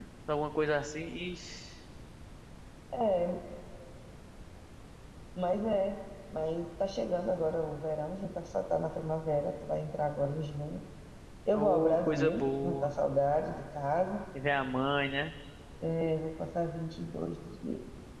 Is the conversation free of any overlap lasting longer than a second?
No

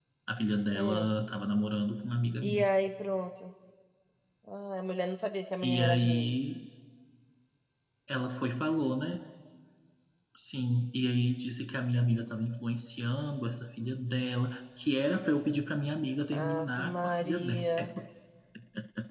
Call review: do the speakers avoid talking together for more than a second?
No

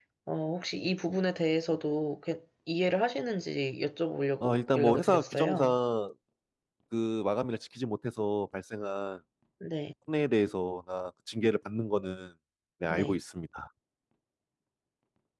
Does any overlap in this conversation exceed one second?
Yes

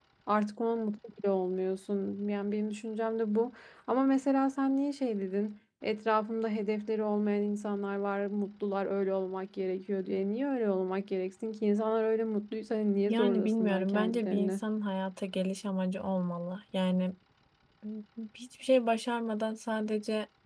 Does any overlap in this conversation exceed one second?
Yes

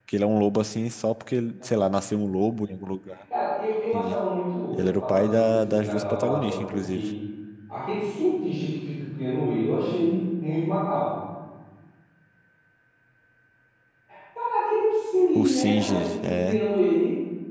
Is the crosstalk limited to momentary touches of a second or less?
No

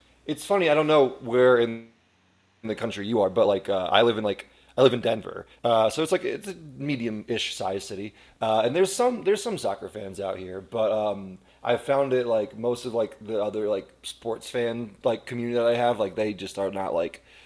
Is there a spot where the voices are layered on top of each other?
No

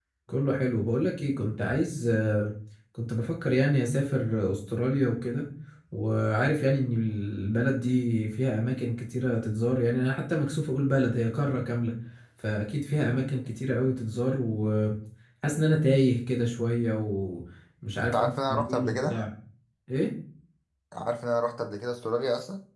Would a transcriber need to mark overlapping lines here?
Yes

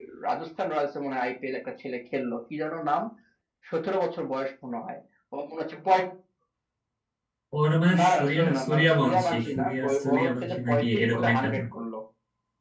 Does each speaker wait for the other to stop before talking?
No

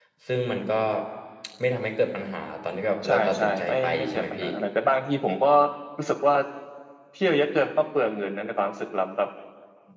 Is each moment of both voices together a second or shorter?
No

